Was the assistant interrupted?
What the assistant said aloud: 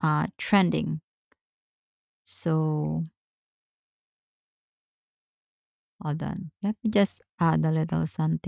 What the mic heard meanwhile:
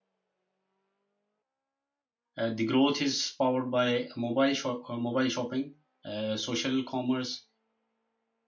Yes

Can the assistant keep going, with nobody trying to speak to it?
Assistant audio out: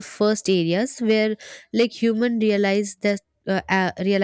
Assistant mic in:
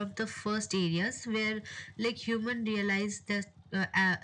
Yes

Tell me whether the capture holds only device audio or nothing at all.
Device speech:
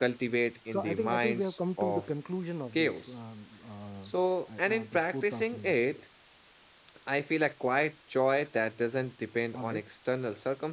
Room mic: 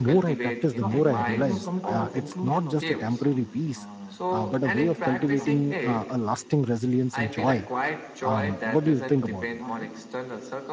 No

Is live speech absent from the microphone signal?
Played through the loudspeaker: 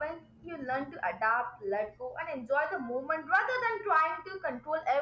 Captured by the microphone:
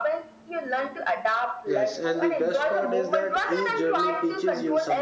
No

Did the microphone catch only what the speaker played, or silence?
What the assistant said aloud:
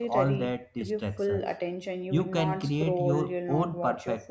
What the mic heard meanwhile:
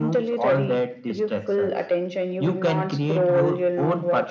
Yes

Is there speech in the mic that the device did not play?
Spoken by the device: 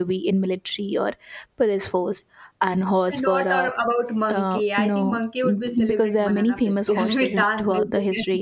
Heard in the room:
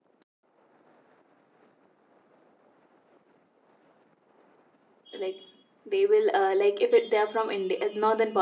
Yes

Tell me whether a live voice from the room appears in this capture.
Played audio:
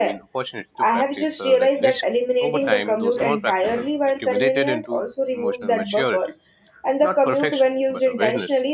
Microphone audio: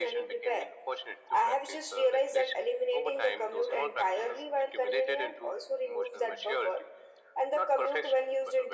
No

